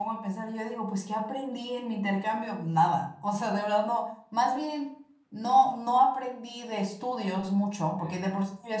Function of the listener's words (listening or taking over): listening